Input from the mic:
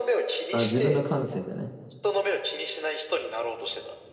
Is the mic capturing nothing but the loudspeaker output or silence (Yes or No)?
No